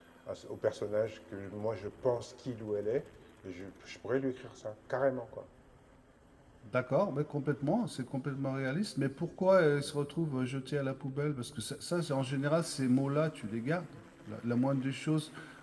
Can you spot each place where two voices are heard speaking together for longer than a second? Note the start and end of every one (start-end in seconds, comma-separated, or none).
none